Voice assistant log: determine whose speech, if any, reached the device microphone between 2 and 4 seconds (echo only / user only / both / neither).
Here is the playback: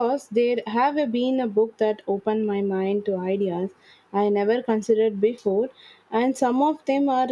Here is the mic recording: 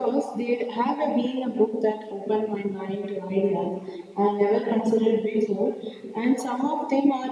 echo only